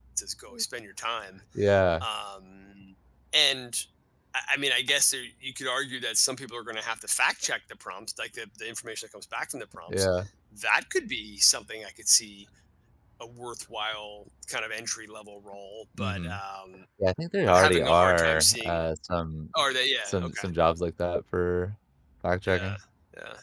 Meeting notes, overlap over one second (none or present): present